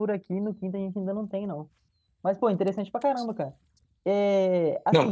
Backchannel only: Yes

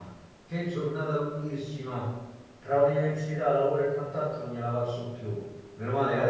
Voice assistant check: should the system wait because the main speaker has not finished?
Yes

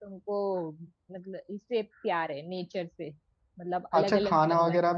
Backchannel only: No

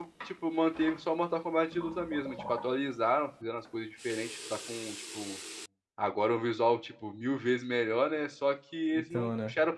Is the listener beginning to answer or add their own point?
No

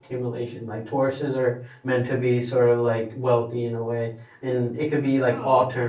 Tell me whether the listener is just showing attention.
Yes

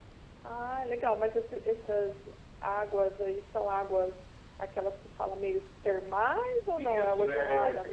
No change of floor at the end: No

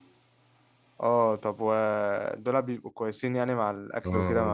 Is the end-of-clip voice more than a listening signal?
Yes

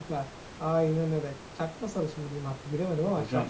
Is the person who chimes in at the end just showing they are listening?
No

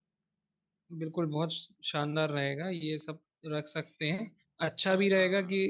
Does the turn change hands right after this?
No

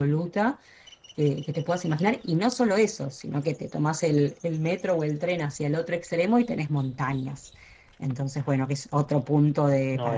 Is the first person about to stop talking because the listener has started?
No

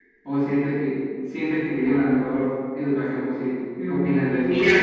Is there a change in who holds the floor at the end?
Yes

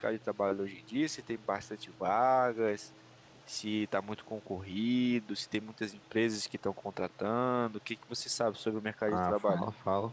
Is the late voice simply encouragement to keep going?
No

